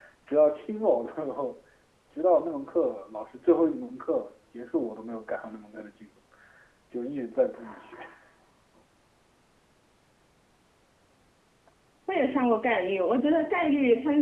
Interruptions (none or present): none